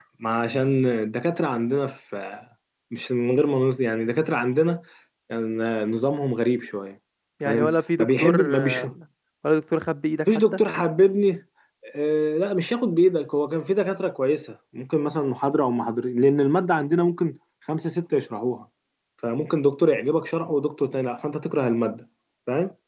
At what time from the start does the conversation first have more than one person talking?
7.4 s

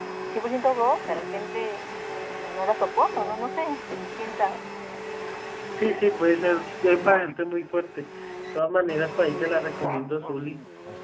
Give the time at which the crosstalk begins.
none

